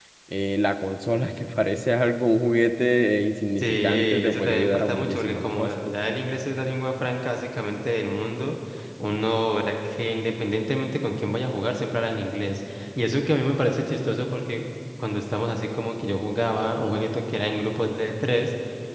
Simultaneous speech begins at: 3.6 s

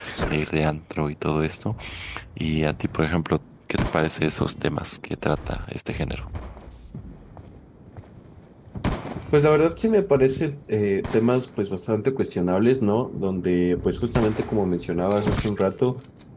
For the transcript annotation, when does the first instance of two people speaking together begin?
none

